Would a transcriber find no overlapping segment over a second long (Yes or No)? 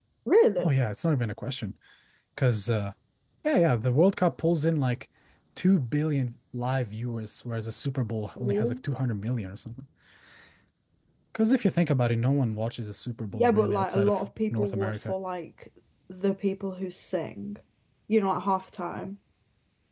No